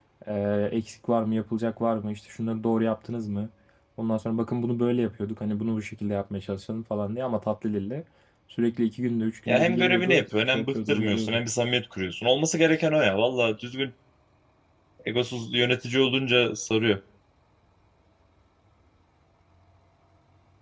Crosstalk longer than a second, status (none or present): present